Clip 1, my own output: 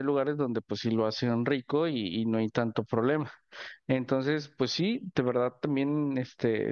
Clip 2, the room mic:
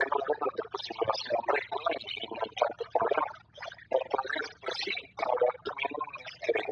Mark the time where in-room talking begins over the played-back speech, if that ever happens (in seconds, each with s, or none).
none